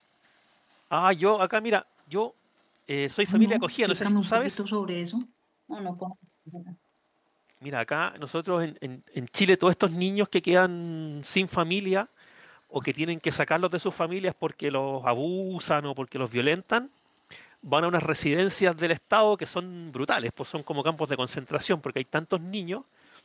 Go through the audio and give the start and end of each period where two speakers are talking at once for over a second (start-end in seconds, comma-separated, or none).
3.3-4.6